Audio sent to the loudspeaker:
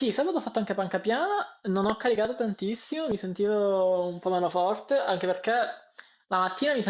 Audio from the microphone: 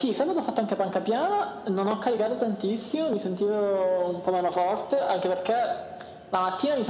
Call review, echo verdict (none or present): present